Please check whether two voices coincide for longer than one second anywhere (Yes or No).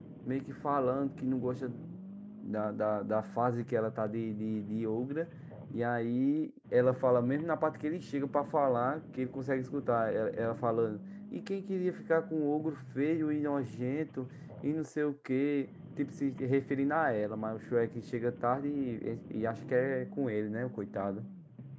No